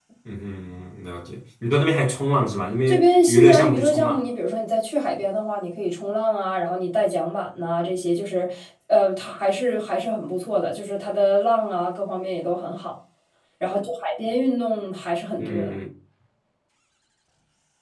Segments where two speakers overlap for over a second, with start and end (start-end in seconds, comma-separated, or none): 2.9-4.2